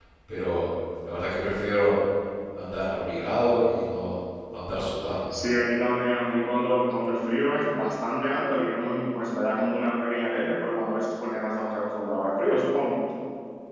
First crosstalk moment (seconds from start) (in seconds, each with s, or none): none